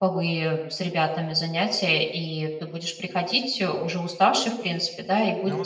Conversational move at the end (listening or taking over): listening